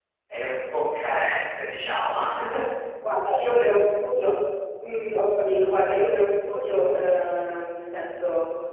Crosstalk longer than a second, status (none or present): none